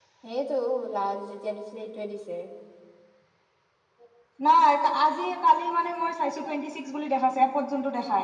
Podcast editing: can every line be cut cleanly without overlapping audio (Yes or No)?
Yes